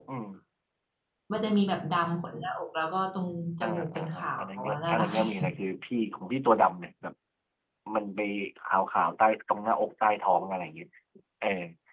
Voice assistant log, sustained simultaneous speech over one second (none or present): present